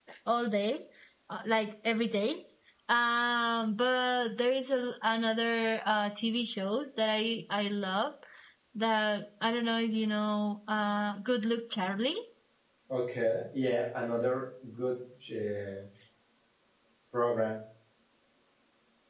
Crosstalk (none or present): none